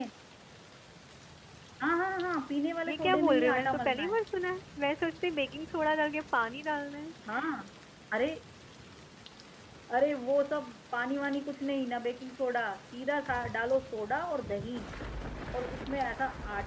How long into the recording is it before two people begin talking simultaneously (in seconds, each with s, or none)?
2.9 s